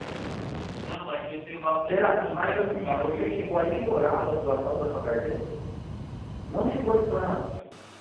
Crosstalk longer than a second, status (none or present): present